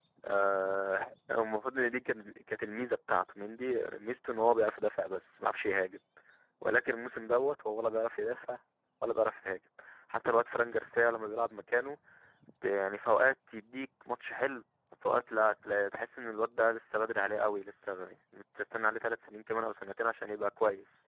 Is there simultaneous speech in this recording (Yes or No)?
No